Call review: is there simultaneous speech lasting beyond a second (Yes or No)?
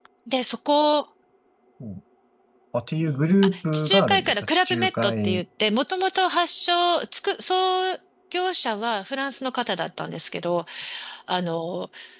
Yes